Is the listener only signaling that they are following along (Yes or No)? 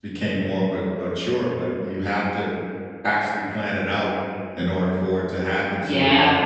No